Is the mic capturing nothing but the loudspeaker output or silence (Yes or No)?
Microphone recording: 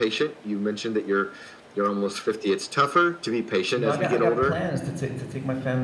No